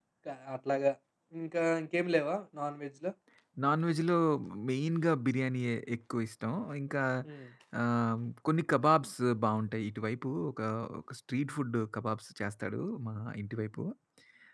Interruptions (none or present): none